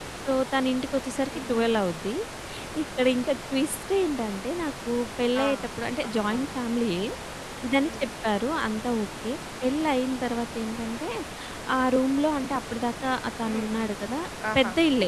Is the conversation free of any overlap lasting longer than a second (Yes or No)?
Yes